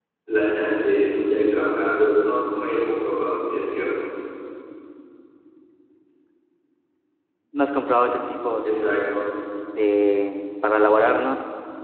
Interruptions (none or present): none